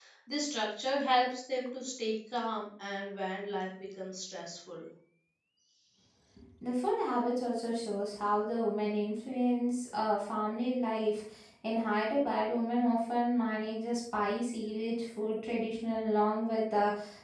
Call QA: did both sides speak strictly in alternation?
Yes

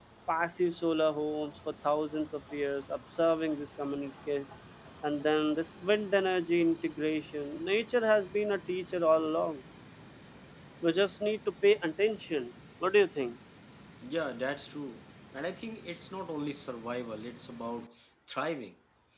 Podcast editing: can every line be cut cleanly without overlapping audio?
Yes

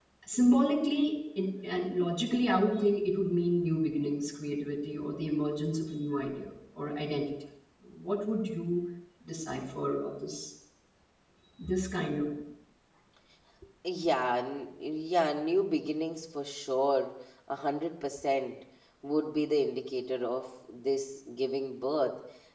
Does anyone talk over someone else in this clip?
No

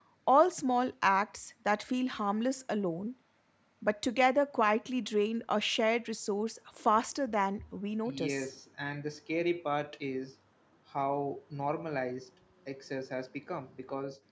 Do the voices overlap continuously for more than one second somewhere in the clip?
No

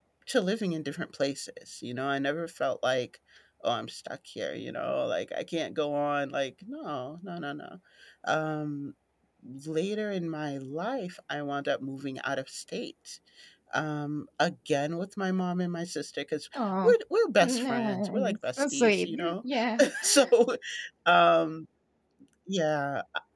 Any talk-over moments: Yes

